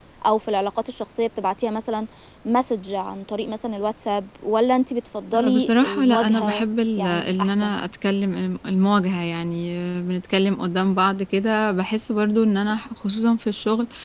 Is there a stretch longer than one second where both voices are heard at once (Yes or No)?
Yes